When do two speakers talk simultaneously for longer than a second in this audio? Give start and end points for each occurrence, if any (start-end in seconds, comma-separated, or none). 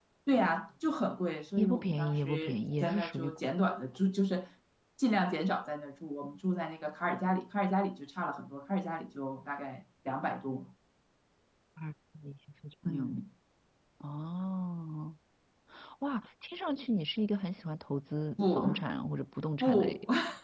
1.6-3.4